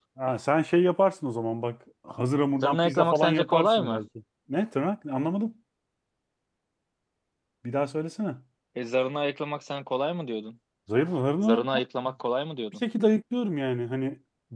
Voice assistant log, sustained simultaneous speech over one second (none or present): present